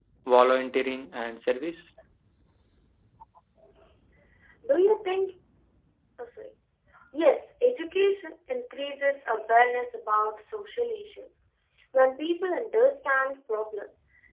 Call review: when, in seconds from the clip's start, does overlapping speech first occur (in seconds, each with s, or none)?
none